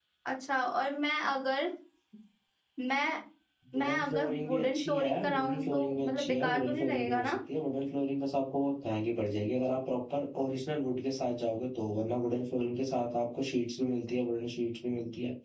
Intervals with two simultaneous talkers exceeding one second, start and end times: 3.8-7.4

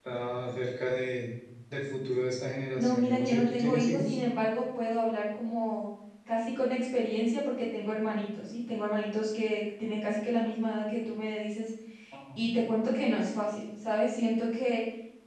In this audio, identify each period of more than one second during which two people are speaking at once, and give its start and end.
2.8-4.2

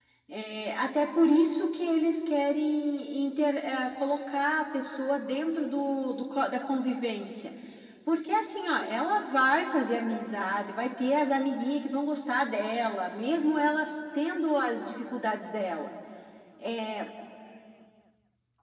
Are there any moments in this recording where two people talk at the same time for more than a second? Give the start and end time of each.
none

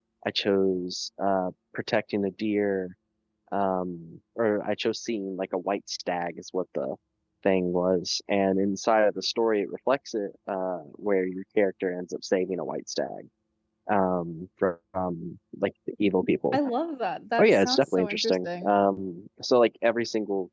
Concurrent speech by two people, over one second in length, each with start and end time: 17.4-18.7

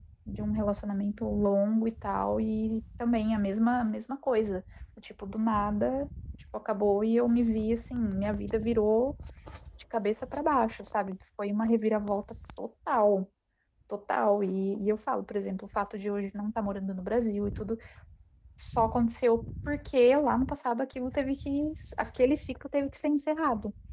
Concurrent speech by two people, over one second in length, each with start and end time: none

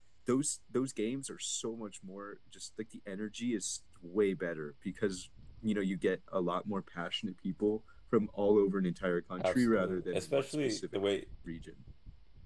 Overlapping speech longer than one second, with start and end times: 9.4-11.0

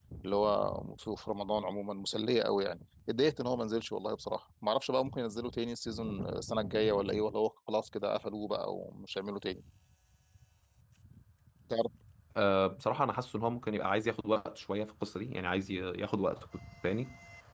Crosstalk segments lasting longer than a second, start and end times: none

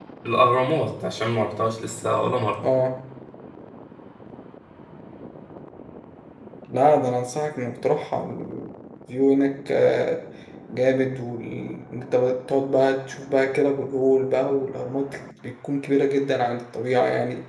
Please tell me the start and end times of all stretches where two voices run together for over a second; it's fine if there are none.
none

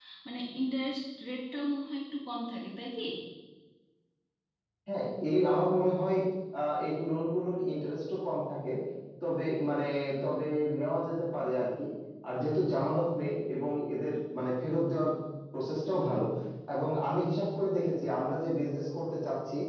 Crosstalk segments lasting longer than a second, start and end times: none

